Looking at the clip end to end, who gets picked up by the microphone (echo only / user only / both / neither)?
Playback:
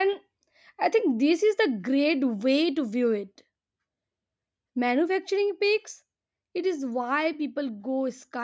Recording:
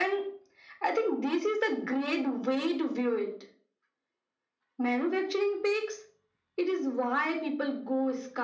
echo only